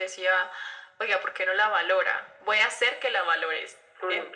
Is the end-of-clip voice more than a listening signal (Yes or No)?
Yes